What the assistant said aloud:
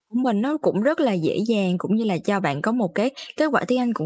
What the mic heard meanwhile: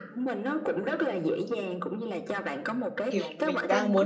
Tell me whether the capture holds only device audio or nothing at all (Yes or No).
No